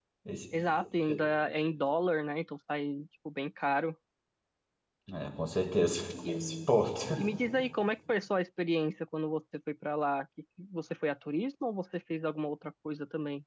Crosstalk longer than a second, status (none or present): none